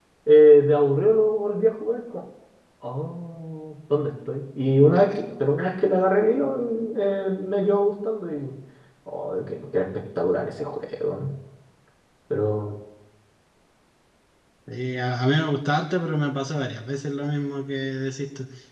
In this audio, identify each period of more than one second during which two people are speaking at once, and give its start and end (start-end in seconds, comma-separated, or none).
none